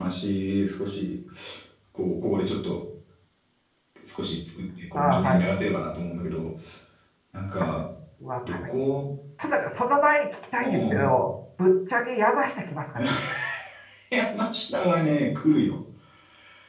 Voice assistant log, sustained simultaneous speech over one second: none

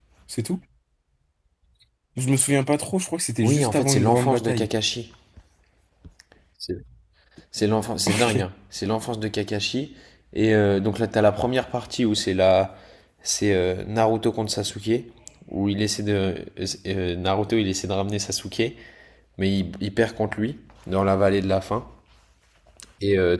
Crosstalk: present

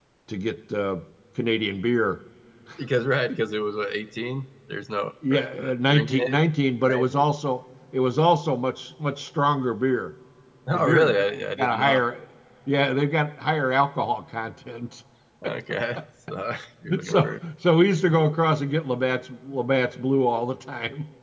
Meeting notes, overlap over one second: present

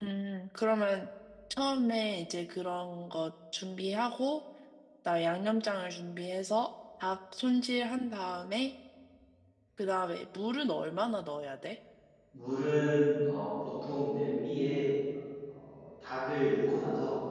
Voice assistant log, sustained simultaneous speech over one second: none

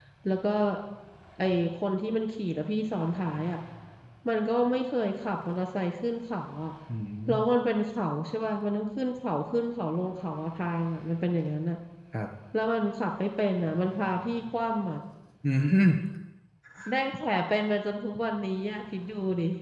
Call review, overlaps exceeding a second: none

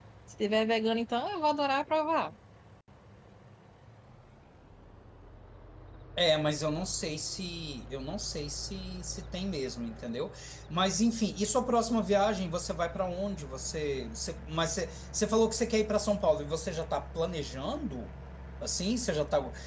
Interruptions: none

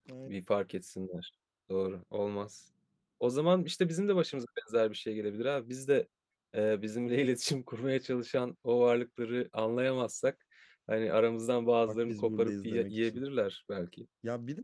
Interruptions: present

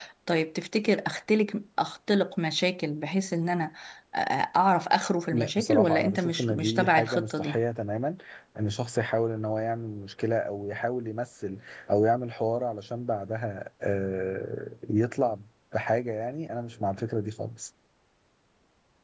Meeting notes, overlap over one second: present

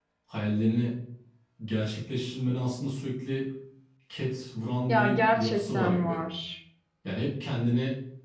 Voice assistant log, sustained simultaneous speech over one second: present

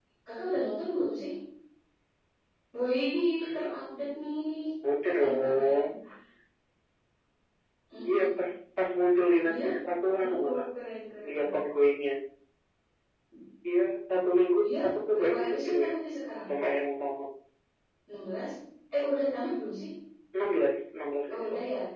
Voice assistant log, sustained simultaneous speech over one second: present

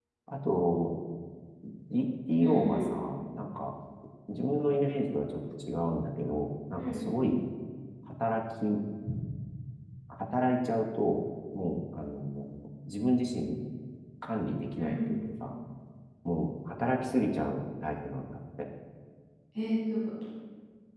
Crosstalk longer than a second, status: none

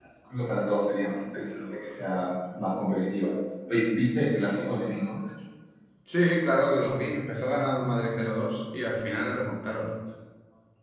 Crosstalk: none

